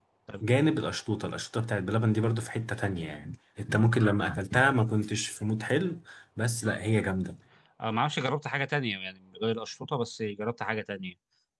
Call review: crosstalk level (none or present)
none